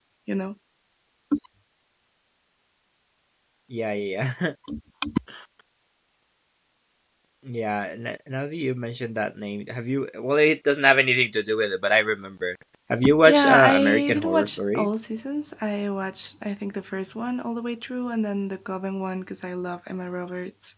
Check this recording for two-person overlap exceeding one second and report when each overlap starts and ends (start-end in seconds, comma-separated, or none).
13.2-14.9